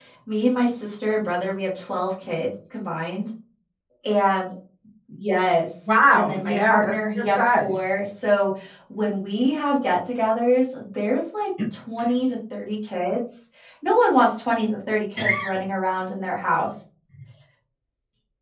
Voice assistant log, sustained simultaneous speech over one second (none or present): present